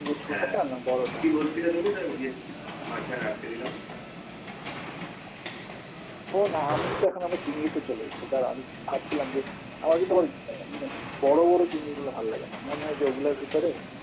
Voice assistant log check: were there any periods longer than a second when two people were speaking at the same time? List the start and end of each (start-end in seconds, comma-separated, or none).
none